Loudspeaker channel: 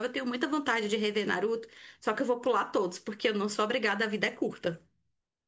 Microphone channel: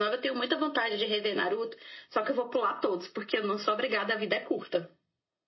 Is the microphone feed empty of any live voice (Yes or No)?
Yes